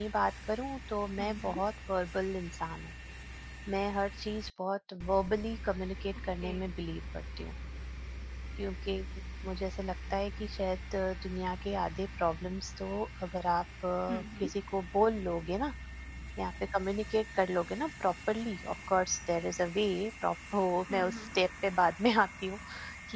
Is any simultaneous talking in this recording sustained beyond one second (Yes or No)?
No